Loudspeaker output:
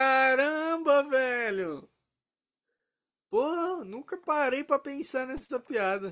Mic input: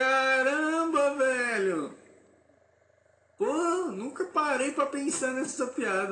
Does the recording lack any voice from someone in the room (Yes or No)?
Yes